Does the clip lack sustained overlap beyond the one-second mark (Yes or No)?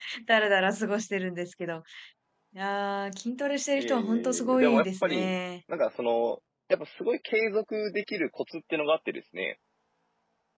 No